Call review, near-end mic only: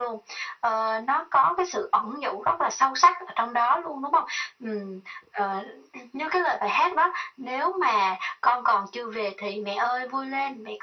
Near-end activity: none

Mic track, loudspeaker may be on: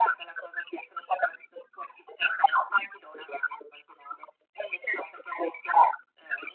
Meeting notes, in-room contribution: none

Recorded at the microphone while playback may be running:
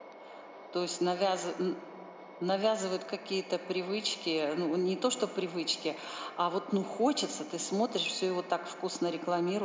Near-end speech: present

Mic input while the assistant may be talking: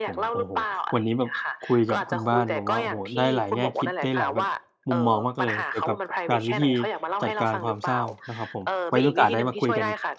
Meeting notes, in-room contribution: present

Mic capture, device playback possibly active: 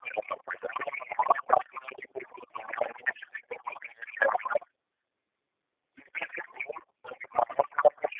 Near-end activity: none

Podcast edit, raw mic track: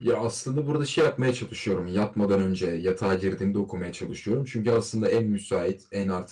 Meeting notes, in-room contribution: present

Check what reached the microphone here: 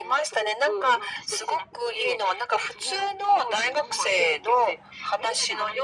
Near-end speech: none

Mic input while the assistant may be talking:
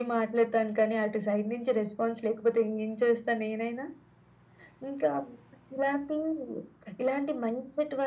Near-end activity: none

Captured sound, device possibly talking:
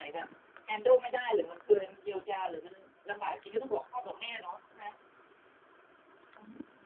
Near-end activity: none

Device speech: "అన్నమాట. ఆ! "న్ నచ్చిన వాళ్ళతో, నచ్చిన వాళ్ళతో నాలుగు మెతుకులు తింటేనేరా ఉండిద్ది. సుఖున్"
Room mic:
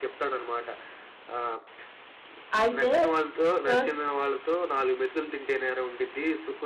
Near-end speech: present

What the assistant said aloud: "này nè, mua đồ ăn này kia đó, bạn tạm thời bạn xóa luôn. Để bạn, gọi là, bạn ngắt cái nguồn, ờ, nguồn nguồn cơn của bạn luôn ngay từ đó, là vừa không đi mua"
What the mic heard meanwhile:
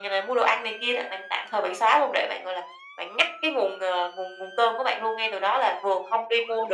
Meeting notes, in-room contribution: none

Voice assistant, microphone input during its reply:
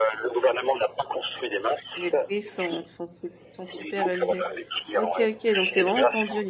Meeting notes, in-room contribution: present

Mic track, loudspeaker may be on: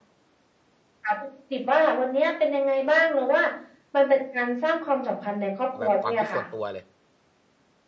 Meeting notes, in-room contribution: present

